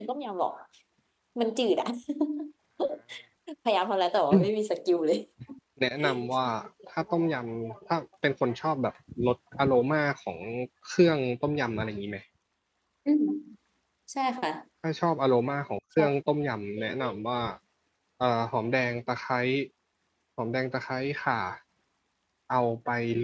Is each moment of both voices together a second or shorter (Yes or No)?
Yes